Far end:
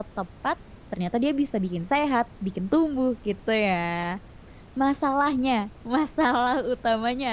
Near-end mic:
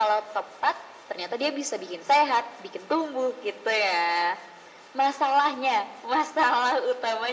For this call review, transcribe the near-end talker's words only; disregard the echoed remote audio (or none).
none